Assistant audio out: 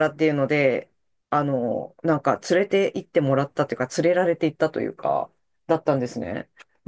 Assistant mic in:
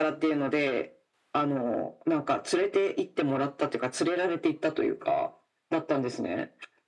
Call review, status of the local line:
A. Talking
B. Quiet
B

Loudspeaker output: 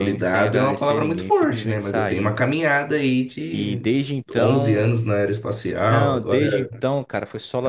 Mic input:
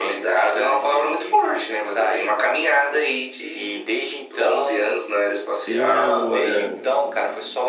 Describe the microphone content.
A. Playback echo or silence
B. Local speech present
B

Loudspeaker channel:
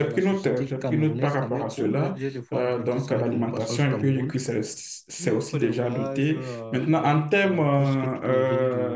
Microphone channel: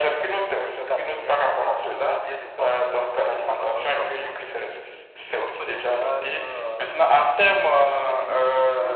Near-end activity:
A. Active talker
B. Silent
A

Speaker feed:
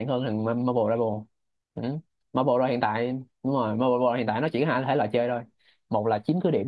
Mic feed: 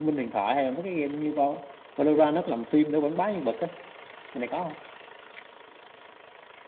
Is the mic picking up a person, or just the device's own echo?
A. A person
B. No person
A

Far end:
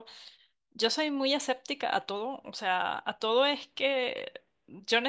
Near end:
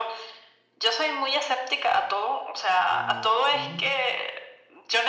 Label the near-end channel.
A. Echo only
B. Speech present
B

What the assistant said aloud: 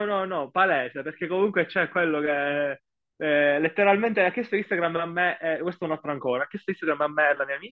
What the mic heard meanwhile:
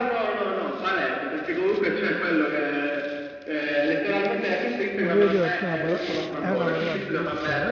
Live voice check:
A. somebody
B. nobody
A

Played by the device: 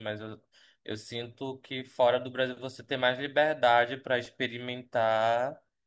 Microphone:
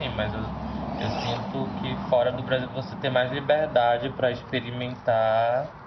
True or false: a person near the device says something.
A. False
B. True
A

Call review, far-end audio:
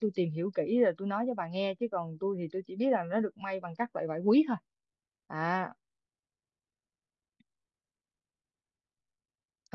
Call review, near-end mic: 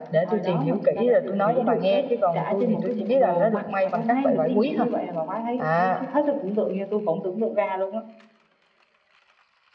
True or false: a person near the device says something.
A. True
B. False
A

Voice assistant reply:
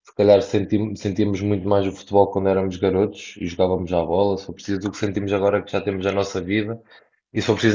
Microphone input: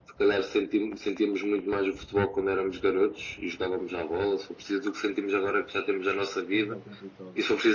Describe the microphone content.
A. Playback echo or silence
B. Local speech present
B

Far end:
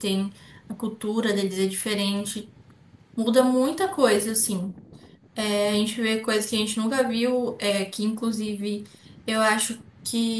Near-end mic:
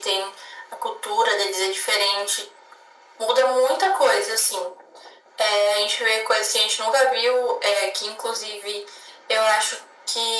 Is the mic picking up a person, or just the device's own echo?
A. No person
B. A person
A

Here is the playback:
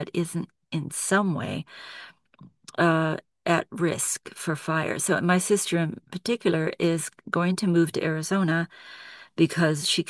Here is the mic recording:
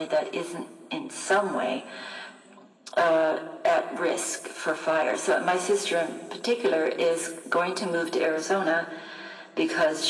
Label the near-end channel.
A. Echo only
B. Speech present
A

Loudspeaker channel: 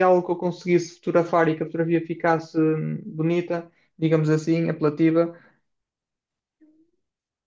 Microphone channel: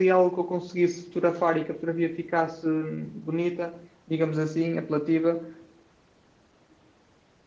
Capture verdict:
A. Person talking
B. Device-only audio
B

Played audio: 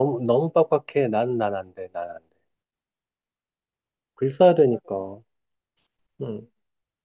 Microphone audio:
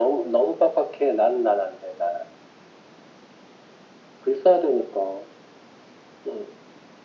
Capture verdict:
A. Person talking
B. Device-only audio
B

